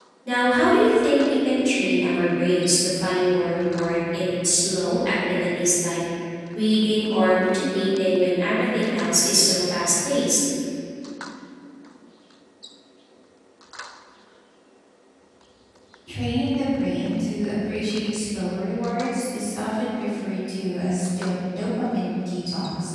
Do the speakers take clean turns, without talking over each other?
Yes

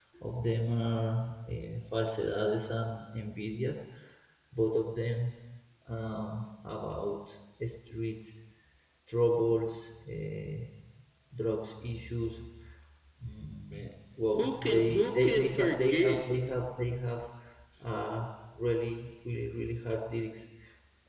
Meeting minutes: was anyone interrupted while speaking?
Yes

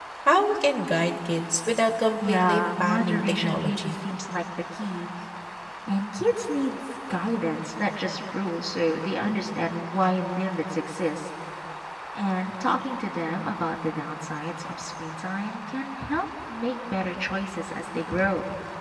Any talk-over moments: Yes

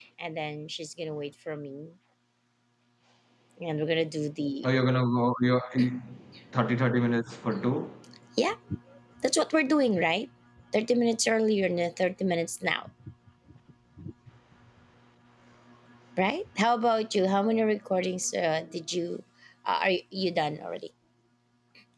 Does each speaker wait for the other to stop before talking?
Yes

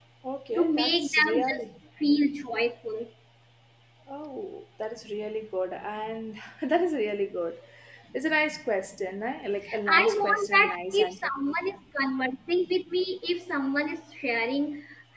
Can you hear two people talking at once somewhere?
Yes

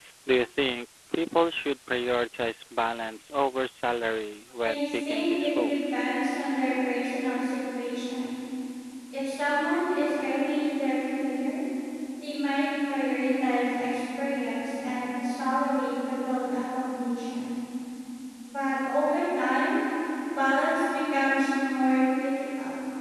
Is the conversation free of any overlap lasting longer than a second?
No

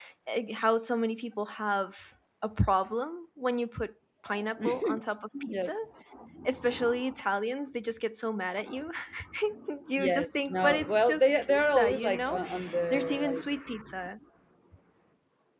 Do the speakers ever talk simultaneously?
Yes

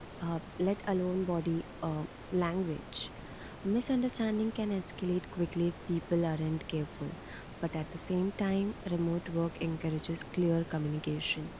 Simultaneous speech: No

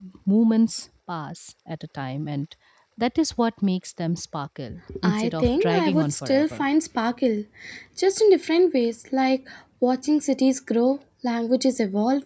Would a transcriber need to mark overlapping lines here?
Yes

